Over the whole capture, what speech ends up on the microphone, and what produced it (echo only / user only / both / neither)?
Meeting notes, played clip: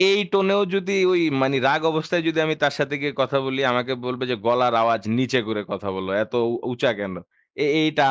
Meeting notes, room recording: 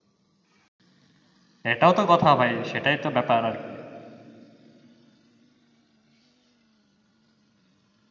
user only